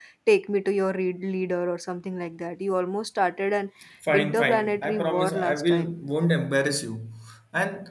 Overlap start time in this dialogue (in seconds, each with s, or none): 4.1 s